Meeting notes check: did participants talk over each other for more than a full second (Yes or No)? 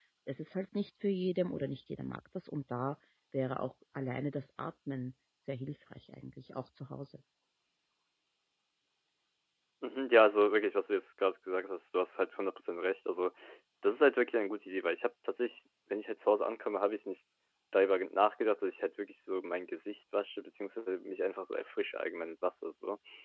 No